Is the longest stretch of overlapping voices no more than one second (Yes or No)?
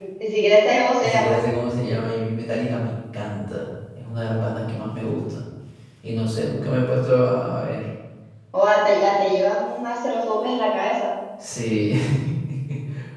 Yes